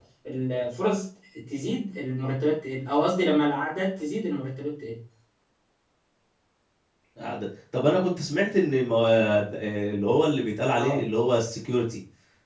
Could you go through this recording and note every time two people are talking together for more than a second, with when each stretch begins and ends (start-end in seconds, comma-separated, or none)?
none